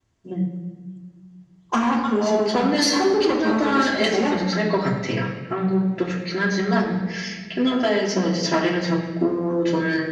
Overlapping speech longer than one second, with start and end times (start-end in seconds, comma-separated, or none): 2.2-4.4